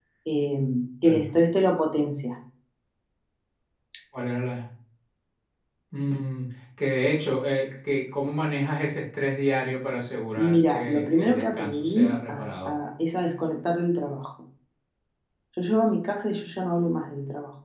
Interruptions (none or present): present